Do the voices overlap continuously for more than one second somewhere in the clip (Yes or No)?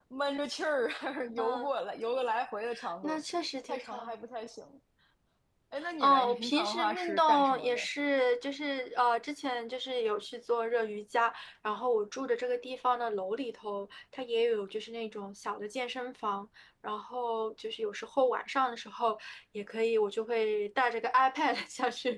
Yes